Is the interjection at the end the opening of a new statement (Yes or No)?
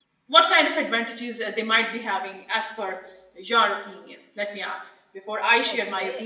Yes